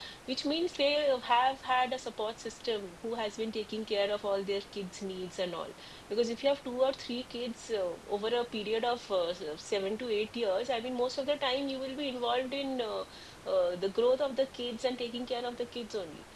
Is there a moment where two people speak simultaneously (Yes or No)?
No